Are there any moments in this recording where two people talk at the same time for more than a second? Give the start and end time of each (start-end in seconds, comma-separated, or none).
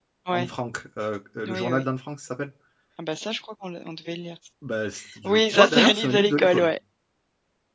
5.2-6.7